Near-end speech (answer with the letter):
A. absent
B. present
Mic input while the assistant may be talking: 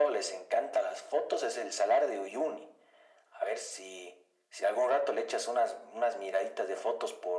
A